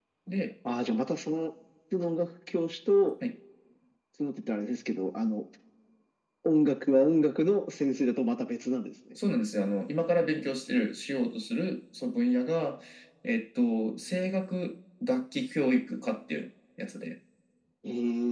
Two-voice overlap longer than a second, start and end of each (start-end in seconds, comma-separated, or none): none